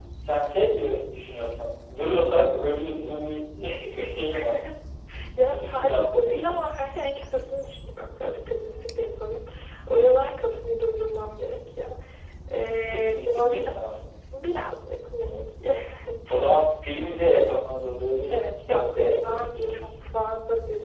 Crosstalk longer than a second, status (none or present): present